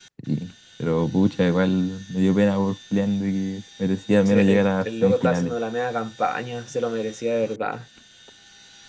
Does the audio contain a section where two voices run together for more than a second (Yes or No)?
Yes